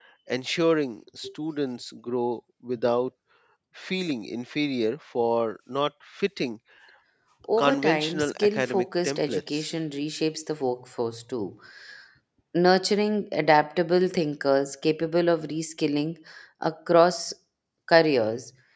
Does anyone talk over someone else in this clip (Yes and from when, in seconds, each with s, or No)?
Yes, from 7.6 s